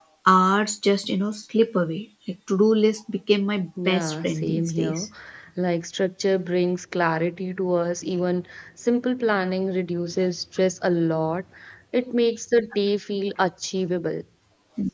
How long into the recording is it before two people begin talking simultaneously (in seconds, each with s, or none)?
3.8 s